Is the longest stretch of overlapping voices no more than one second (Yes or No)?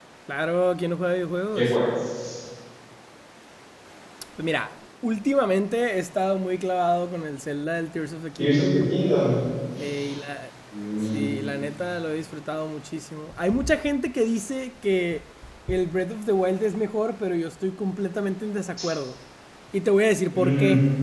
Yes